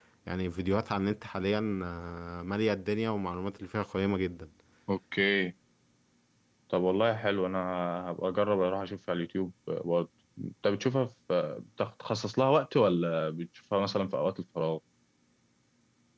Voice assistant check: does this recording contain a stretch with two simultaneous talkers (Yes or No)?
No